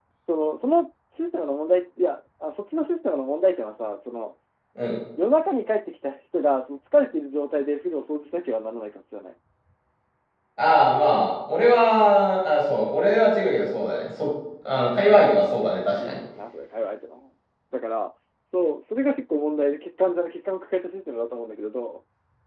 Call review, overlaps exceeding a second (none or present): none